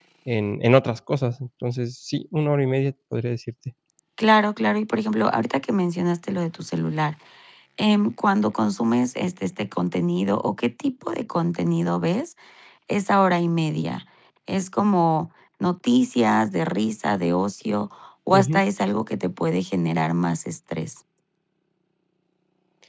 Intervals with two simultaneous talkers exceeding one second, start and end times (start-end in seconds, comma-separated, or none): none